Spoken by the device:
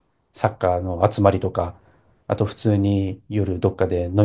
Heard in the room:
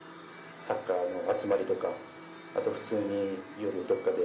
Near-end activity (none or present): none